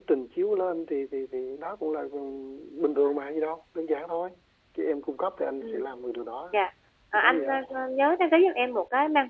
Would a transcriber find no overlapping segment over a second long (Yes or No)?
Yes